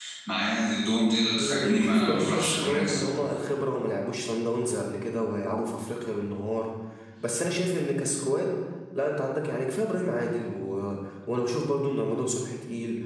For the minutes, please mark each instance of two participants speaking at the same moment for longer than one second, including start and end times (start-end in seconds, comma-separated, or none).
1.4-3.0